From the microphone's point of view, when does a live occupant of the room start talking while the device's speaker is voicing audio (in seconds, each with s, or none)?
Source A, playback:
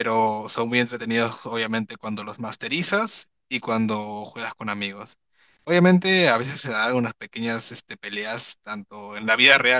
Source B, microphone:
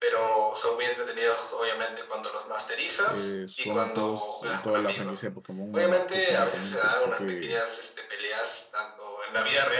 3.0 s